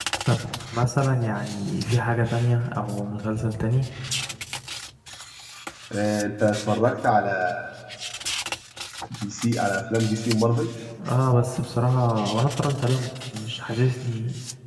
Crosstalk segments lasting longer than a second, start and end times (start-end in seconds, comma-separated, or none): none